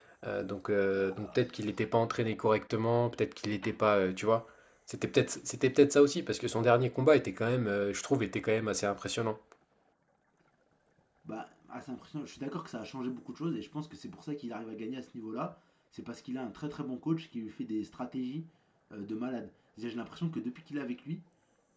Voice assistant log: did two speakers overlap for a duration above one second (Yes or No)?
No